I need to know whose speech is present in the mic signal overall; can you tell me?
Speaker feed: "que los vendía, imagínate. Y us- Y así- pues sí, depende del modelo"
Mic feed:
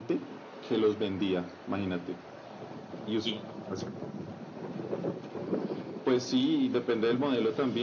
echo only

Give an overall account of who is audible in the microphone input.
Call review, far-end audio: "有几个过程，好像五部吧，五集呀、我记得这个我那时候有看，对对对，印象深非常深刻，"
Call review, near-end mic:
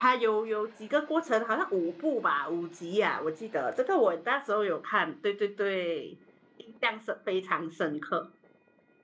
echo only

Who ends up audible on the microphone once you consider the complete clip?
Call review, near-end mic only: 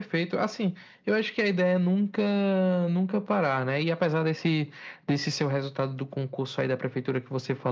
echo only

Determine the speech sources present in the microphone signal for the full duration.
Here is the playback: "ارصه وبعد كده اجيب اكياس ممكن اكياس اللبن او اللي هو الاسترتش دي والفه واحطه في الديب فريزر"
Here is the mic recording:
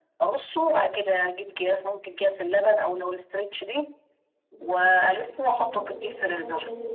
both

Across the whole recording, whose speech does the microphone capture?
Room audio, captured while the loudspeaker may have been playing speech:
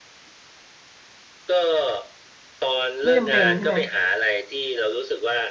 both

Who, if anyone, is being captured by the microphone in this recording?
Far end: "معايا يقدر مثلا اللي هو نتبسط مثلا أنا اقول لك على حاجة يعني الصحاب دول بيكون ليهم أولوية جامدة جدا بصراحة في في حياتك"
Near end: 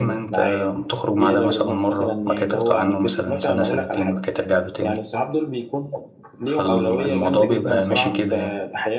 both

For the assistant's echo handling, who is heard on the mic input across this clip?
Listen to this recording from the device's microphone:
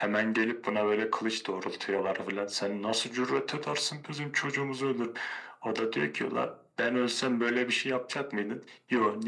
echo only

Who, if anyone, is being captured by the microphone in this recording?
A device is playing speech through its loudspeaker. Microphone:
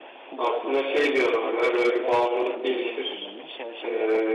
both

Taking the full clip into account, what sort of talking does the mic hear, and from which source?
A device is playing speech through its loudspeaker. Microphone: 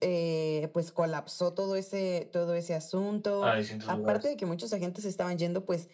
both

